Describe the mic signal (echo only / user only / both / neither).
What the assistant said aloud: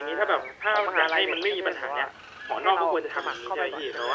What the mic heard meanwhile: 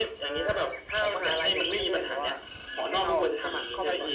echo only